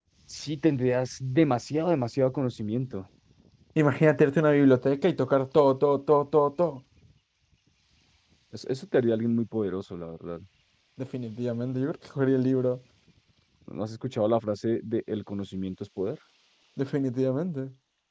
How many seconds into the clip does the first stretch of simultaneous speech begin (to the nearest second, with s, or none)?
none